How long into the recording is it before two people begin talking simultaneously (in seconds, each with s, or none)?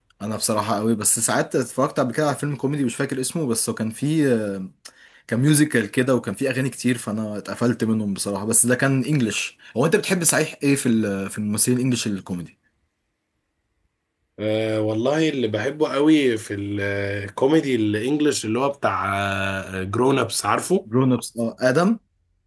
none